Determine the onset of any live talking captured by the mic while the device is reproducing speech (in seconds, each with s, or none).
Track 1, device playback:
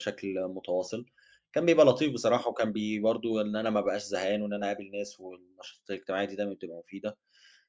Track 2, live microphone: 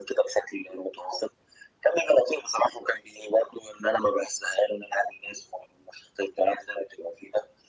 none